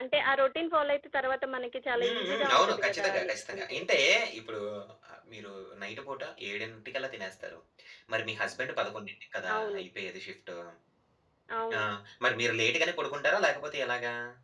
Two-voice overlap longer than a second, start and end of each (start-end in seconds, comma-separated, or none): 2.0-3.8